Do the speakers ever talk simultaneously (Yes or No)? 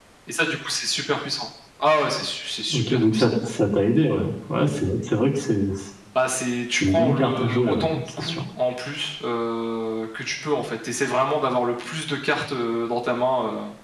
Yes